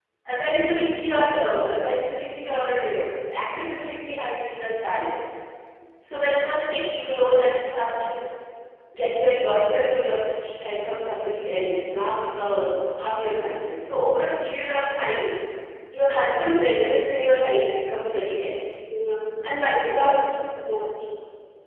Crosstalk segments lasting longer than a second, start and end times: none

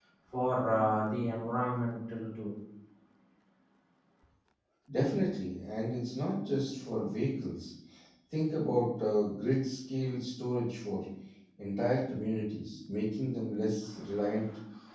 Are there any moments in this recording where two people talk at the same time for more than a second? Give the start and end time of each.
none

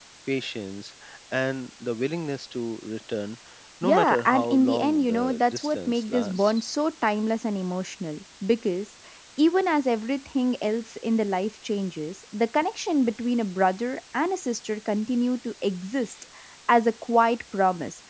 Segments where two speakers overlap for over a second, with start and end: 3.8-6.7

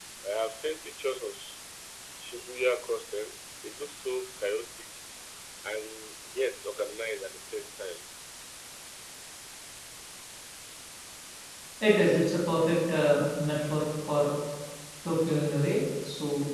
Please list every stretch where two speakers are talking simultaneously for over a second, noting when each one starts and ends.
none

